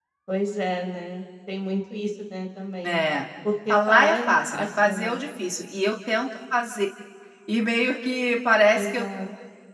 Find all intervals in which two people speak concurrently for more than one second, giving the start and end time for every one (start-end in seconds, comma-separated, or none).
3.7-5.2